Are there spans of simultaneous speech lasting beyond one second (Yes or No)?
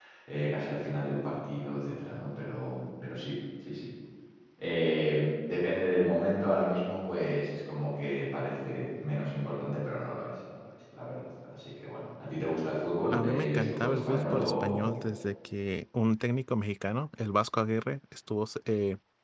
Yes